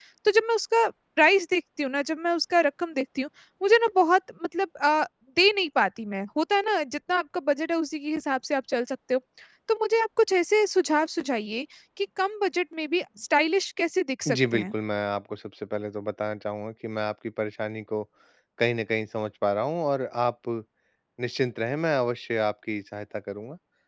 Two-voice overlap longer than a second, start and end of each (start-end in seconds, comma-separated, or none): none